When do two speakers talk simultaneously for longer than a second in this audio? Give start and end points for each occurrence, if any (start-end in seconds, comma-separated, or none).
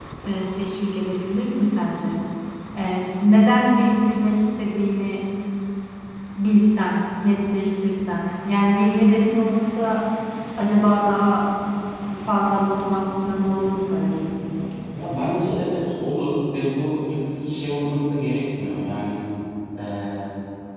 none